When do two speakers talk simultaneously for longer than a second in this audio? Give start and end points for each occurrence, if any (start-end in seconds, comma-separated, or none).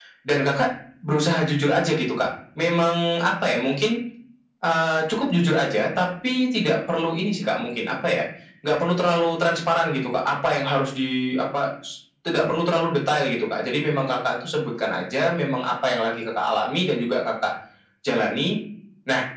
none